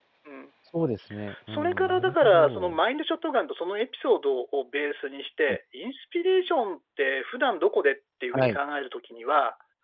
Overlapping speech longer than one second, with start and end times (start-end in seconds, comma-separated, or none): 1.5-2.8